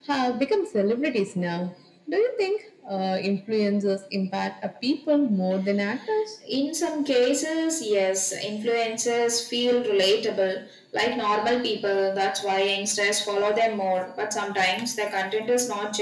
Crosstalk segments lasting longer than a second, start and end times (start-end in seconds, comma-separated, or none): none